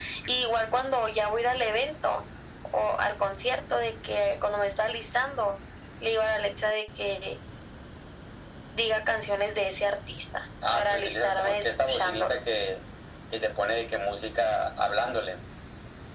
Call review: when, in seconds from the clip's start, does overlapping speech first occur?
10.6 s

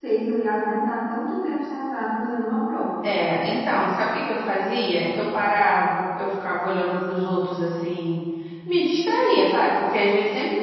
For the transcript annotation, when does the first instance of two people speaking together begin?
none

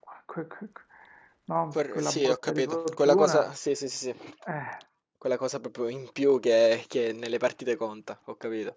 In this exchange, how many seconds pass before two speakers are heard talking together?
1.9 s

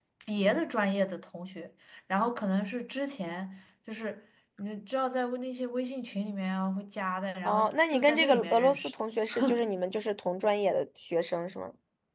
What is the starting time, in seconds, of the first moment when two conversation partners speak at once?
7.5 s

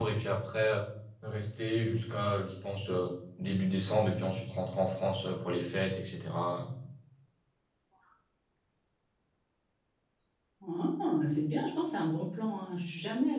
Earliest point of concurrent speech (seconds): none

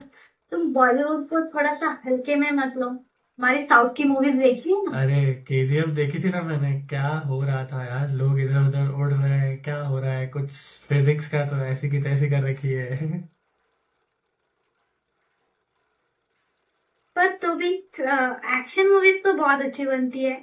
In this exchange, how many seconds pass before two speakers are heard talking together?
none

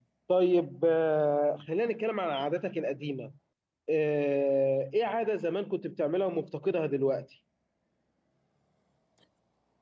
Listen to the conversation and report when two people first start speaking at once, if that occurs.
none

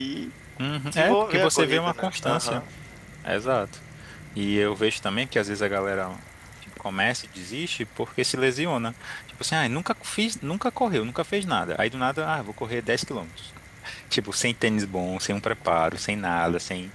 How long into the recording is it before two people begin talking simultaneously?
0.9 s

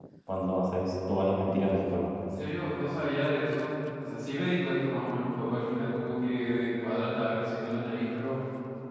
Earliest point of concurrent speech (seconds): none

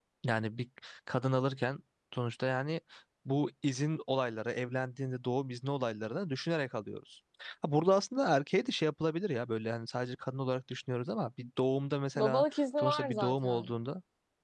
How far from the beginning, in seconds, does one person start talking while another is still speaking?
12.2 s

